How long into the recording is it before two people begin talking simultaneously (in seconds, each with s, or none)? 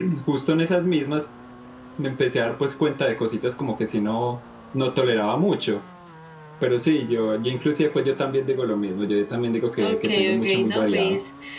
9.8 s